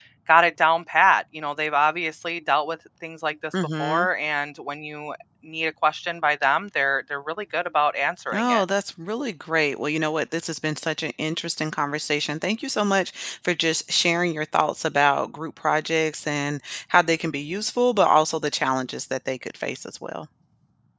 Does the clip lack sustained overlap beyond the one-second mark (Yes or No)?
Yes